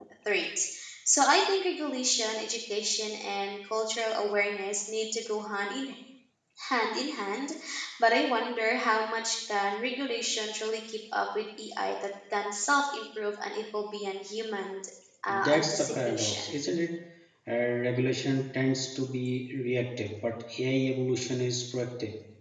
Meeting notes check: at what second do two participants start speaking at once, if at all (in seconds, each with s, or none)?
15.3 s